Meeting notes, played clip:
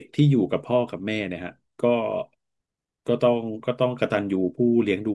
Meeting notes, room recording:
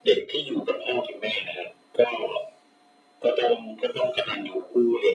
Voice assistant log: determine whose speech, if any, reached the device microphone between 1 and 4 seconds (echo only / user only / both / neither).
echo only